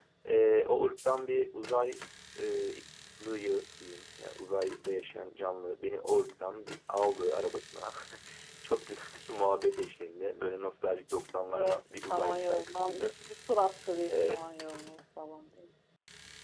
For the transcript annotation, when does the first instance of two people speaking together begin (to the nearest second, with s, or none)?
12 s